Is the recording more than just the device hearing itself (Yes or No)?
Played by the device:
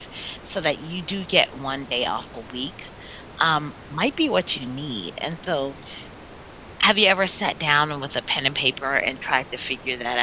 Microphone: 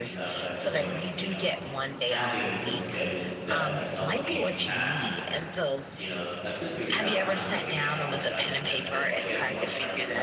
Yes